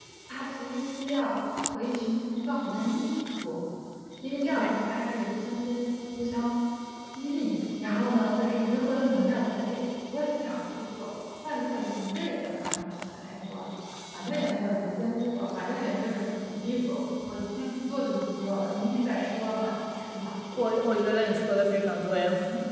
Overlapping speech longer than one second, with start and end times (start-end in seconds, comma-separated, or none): none